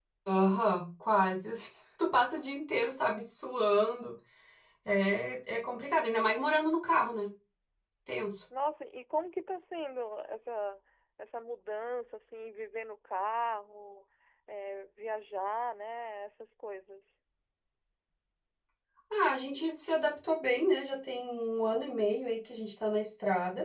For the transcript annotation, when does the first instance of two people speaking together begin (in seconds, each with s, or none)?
none